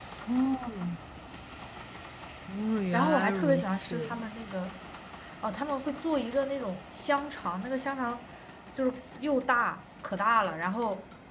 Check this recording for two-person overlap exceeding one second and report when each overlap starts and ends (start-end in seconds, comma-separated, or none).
2.9-4.2